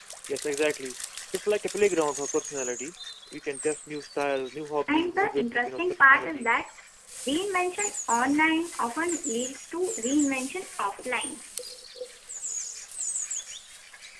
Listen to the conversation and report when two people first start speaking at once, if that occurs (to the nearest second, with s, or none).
5 s